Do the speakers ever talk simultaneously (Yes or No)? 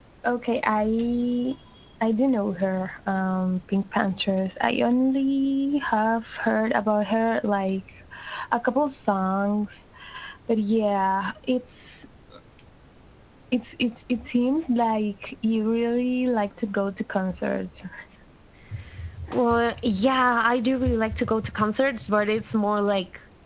No